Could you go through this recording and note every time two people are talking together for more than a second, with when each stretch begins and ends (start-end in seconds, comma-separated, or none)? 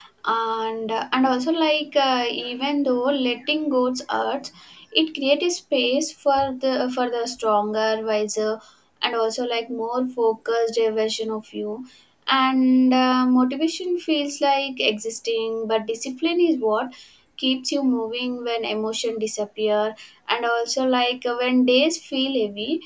none